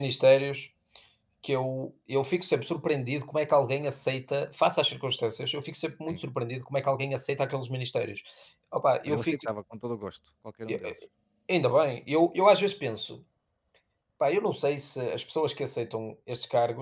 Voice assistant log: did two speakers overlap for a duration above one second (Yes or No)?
No